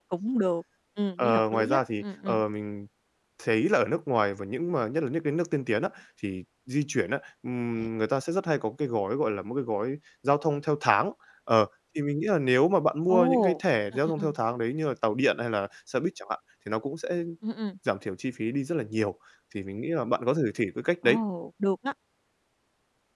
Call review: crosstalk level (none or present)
present